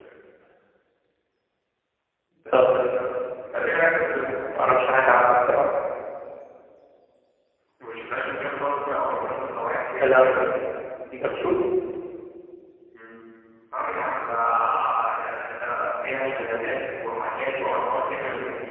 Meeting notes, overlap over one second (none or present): none